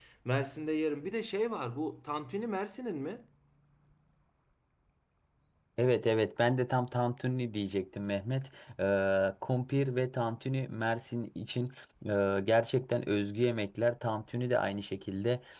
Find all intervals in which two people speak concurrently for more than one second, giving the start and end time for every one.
none

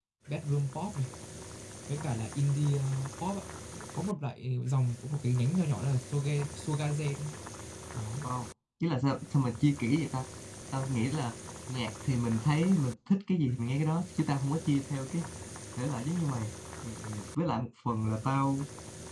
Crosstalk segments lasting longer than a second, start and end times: none

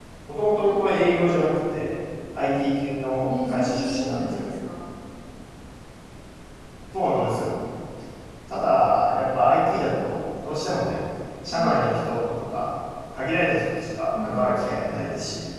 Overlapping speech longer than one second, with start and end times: 3.3-4.5

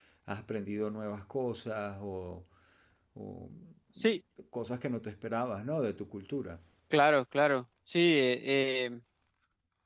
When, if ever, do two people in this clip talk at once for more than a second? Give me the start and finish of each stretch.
none

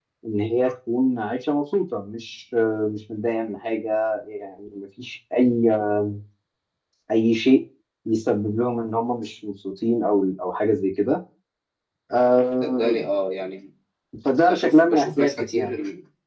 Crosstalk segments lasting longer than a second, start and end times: 14.4-15.7

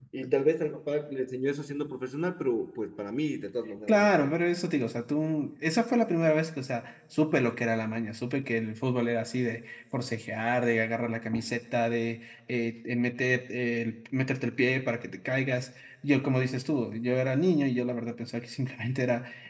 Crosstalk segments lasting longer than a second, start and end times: none

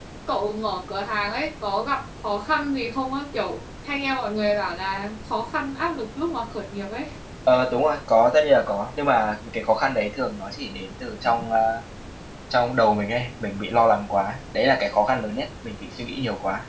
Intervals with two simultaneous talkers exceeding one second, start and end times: none

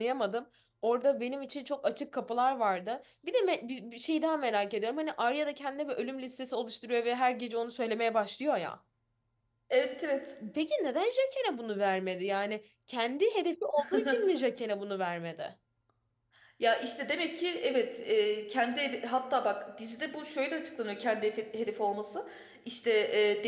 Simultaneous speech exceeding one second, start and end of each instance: none

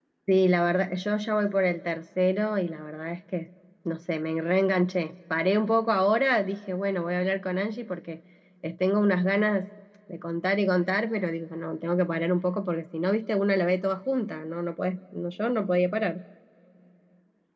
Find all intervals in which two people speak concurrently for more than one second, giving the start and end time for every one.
none

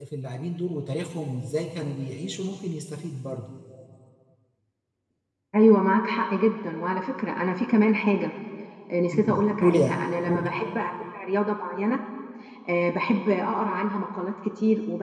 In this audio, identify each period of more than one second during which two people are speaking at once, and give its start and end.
9.1-10.4

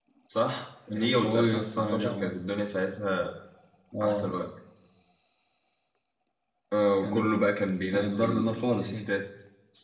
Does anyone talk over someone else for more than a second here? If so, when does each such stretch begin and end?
0.9-2.4, 7.9-9.1

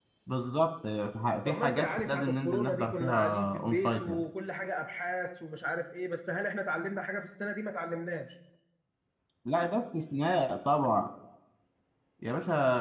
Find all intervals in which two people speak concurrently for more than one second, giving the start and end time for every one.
1.4-4.2

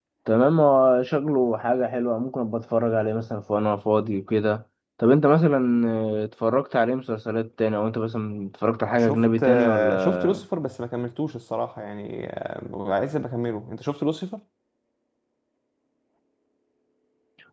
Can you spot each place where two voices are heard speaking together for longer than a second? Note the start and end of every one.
9.0-10.3

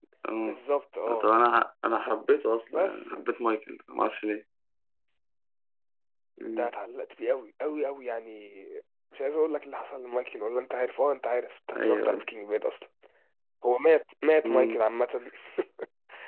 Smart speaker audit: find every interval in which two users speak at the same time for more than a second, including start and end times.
none

